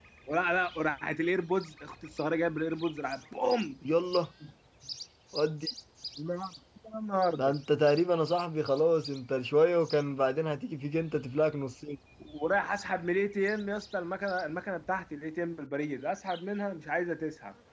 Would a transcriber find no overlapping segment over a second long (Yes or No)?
Yes